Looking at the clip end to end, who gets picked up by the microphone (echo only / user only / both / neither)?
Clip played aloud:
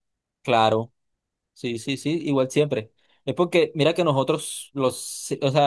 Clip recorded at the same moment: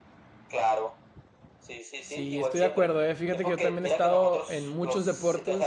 both